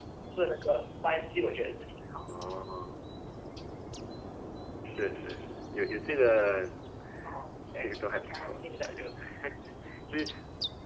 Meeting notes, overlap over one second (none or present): present